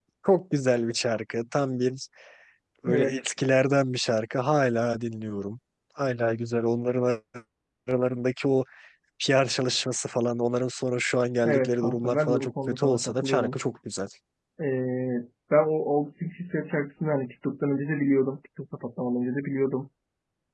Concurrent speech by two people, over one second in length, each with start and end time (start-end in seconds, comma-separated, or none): 11.4-13.6